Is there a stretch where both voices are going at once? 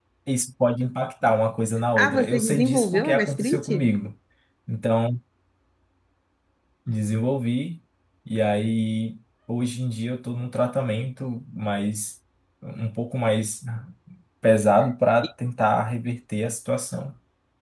Yes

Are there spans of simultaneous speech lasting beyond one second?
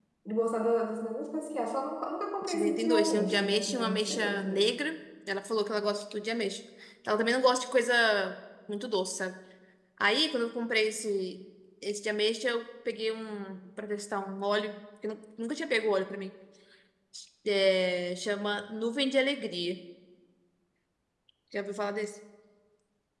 Yes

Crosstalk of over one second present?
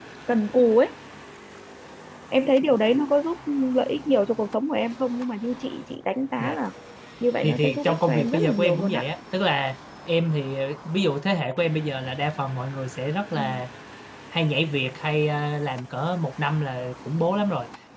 Yes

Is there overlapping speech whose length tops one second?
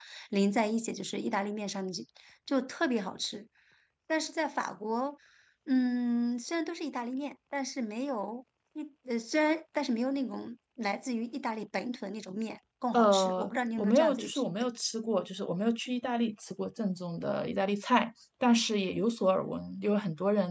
Yes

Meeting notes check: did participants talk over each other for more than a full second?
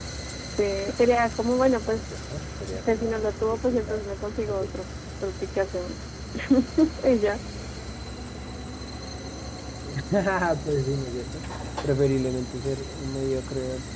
Yes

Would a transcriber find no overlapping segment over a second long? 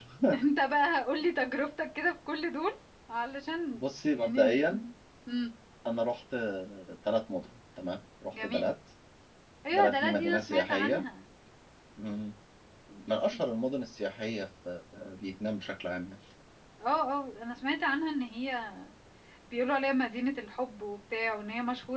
No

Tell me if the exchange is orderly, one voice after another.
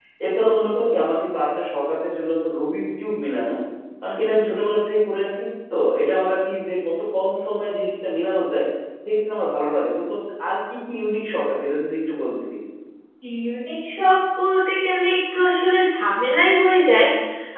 Yes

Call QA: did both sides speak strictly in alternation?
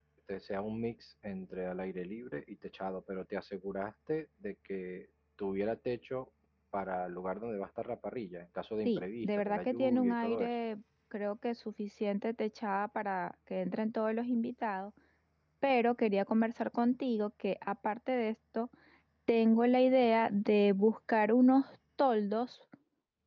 No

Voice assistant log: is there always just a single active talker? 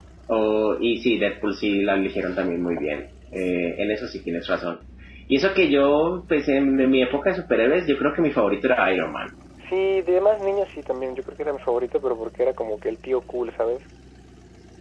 Yes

